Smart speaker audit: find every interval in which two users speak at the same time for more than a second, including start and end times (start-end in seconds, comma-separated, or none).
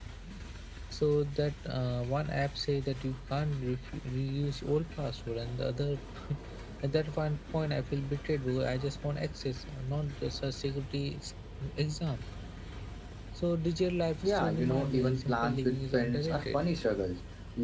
14.2-16.6